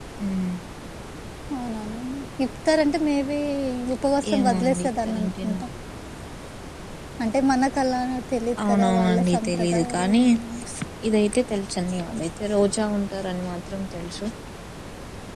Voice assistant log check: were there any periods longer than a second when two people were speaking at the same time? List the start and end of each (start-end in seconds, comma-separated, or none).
4.3-5.6, 8.7-10.2